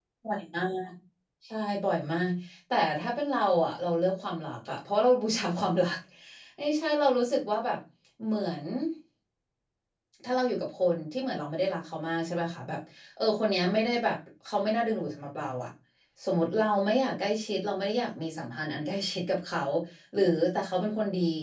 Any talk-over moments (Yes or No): No